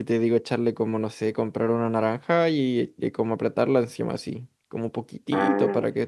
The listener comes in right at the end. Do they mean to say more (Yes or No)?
No